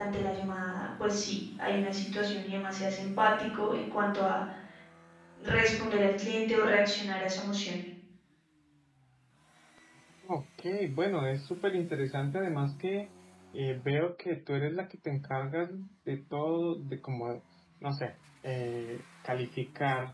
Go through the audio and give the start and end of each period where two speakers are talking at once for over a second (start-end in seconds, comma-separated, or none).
none